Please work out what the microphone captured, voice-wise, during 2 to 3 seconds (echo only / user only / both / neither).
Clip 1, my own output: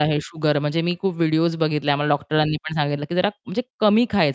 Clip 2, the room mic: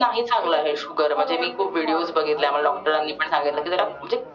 both